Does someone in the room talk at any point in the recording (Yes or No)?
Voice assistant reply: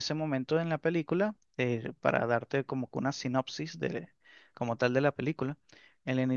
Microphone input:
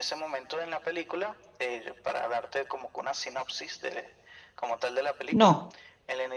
Yes